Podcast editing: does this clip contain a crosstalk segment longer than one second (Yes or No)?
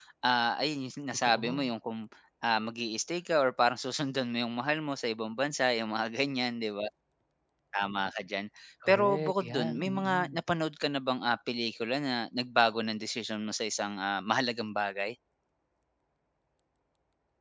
Yes